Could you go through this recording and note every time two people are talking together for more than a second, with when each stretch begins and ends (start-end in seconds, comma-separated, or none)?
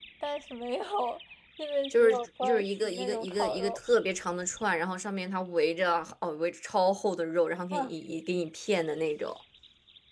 1.9-3.8